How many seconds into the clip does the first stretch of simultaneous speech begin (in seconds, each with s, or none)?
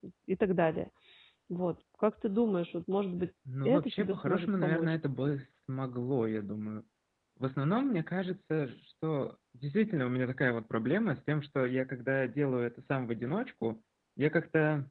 3.4 s